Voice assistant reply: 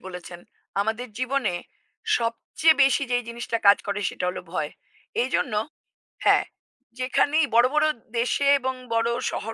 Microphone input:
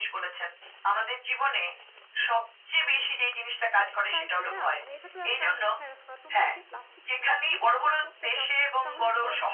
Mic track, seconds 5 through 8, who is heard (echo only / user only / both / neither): both